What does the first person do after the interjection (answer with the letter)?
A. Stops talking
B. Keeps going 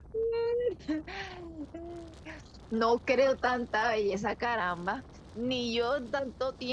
B